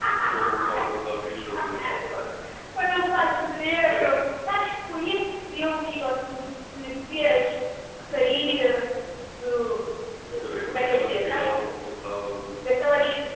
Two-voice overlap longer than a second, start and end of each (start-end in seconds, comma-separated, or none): 10.4-11.7